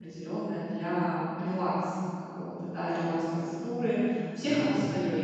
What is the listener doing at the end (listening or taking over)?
listening